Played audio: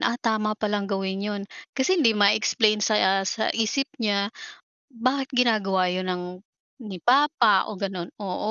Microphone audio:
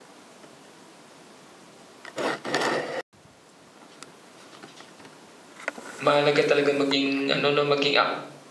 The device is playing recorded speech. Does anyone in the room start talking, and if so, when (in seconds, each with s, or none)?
6.0 s